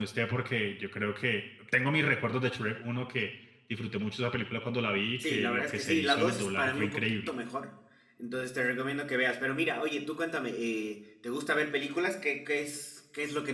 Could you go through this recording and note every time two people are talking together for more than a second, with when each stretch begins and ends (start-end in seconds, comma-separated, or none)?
5.2-7.3